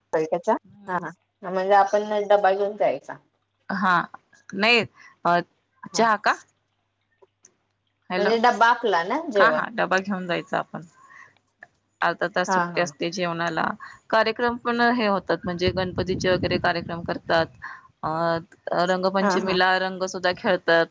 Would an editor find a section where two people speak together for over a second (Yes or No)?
No